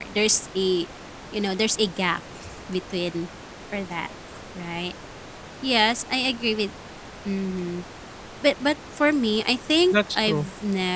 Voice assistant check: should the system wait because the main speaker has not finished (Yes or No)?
Yes